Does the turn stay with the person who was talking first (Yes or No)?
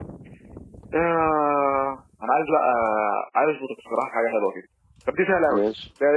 Yes